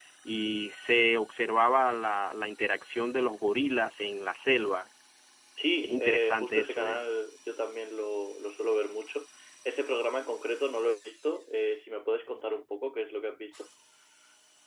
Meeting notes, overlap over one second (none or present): present